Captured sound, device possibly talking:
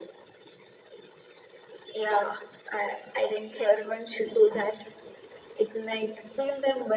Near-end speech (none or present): none